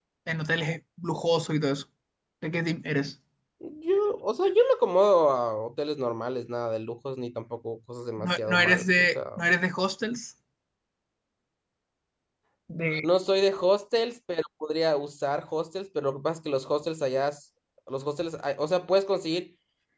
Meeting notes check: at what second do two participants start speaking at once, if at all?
8 s

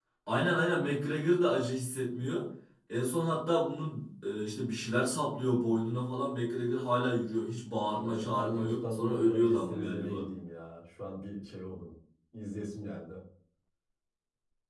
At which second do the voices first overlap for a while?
8 s

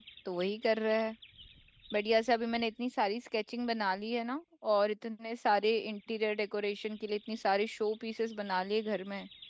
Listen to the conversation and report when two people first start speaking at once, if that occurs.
none

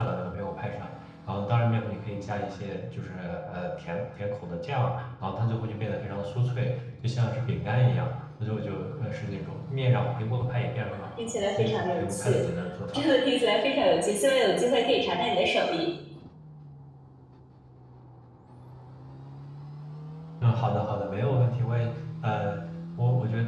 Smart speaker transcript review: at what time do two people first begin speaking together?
11 s

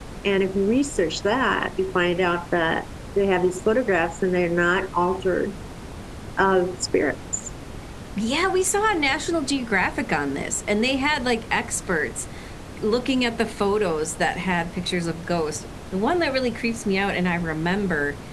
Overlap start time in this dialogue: none

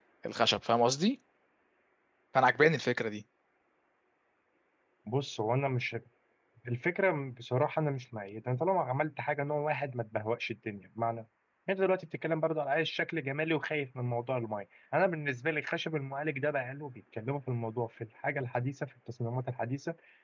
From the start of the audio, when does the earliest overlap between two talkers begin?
none

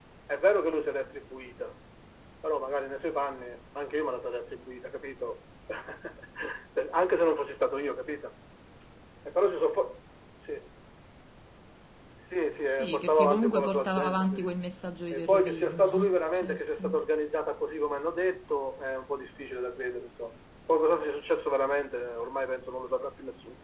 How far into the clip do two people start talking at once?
13 s

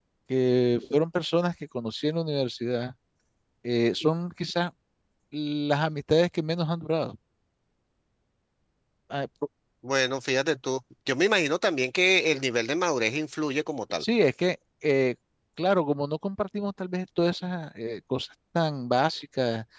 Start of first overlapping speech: none

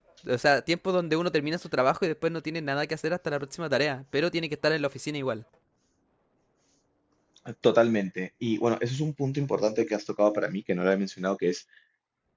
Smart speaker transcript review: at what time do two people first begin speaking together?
none

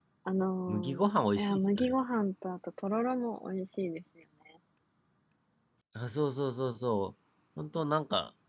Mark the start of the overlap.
1 s

